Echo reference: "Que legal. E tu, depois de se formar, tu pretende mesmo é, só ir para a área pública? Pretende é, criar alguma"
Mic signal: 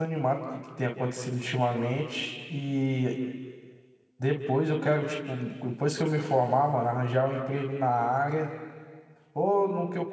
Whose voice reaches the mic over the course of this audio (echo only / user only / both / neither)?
user only